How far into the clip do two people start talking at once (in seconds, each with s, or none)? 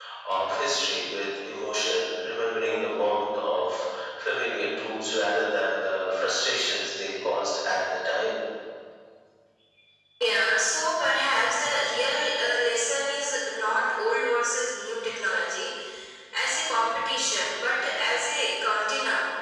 none